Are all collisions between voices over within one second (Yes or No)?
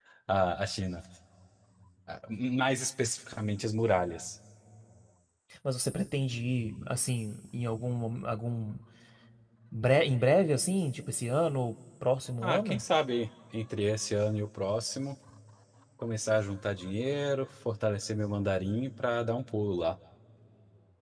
Yes